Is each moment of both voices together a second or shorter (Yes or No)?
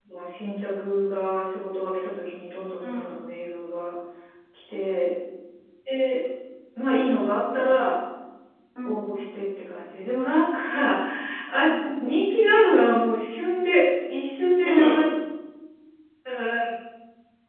Yes